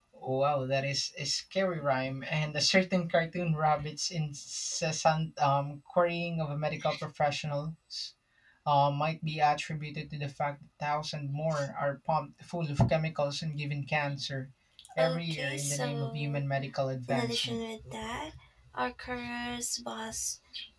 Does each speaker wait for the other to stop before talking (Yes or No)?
No